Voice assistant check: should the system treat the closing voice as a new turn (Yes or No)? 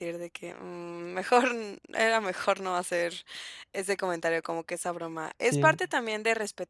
No